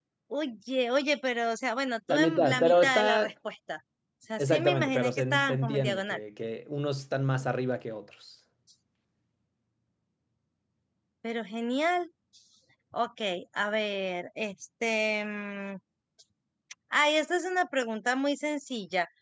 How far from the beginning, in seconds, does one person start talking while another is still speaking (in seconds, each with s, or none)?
2.1 s